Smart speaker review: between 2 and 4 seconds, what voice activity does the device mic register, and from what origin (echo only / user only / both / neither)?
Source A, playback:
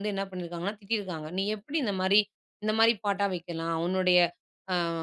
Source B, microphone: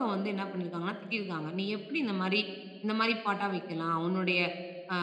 echo only